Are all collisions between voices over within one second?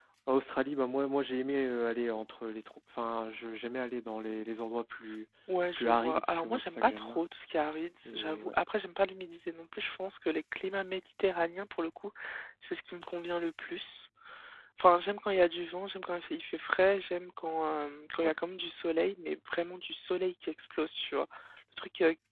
No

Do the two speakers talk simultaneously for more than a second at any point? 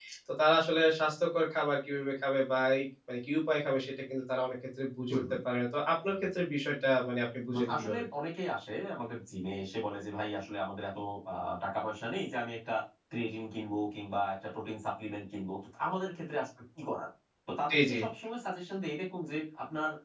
No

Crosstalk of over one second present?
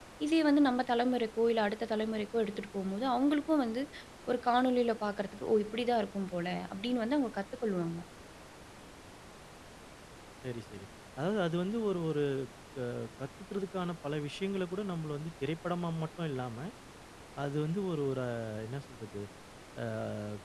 No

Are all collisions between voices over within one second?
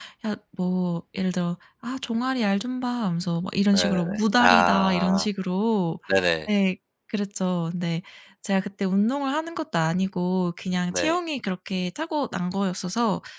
No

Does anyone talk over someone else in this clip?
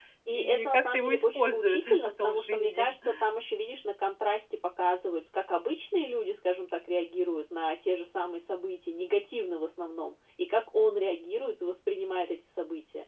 Yes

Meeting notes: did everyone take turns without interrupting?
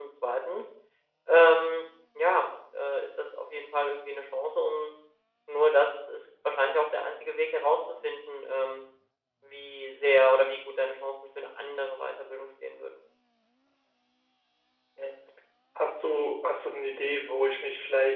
Yes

